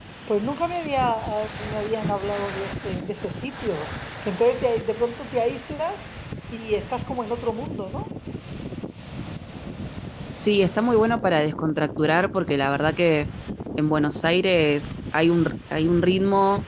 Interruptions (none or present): none